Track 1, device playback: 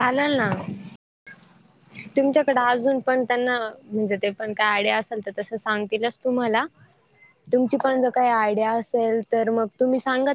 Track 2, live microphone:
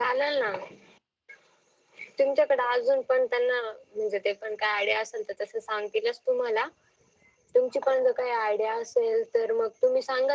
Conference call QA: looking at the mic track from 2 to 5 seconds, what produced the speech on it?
echo only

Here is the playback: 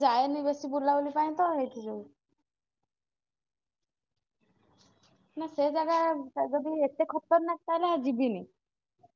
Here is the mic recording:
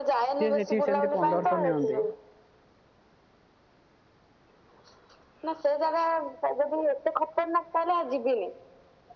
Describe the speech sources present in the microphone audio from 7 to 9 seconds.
echo only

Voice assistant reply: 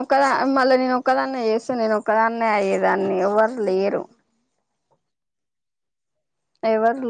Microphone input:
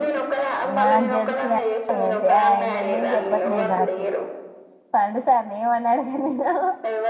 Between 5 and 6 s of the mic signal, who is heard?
user only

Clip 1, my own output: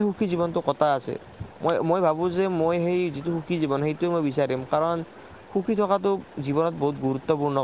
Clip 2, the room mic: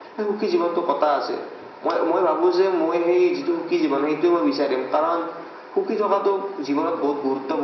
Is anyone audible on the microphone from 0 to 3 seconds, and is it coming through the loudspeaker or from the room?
echo only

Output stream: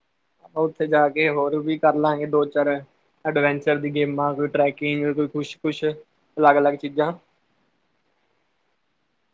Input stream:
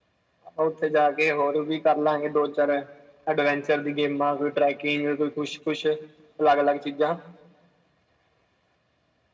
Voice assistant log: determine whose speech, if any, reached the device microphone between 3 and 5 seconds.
echo only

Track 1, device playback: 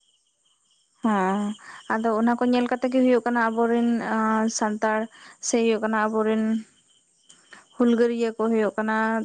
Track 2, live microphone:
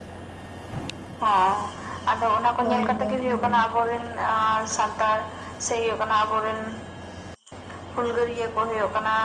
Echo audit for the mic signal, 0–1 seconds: neither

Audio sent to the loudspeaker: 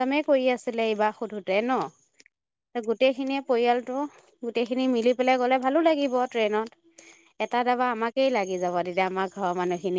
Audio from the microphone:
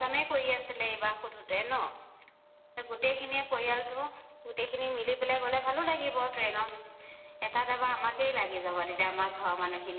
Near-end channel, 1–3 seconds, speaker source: echo only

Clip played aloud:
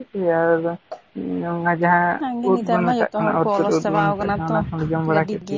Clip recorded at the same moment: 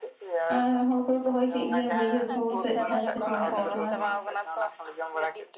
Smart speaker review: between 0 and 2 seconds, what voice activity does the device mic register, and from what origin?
both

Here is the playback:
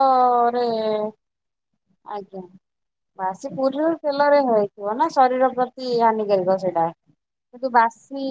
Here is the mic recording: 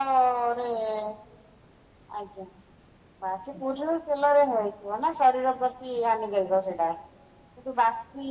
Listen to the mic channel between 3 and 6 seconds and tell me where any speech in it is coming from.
echo only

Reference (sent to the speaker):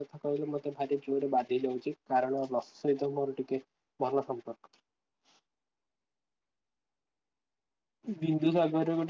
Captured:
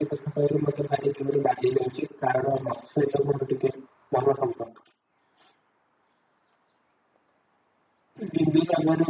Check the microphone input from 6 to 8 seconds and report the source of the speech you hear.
neither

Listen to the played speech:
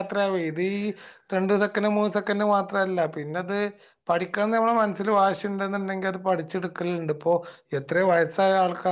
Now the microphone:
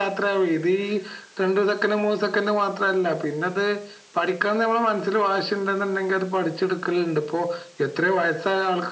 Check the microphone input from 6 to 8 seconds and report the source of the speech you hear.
echo only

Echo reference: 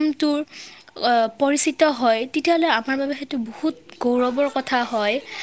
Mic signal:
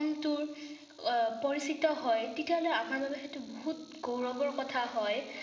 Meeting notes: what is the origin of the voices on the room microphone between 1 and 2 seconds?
echo only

